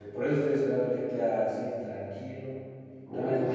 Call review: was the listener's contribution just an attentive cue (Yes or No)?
Yes